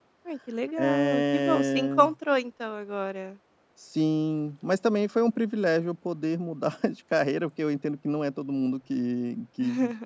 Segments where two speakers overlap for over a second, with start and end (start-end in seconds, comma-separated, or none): 0.8-2.1